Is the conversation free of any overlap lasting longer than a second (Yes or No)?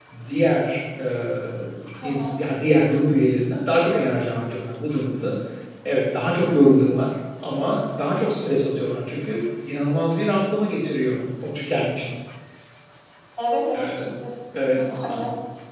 Yes